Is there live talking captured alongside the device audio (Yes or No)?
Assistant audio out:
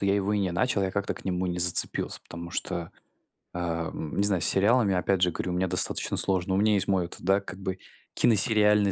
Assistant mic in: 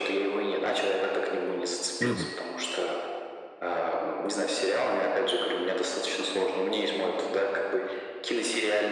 Yes